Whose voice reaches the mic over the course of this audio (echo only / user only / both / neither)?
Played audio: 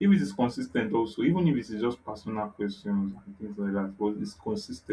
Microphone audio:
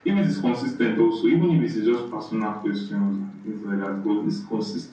echo only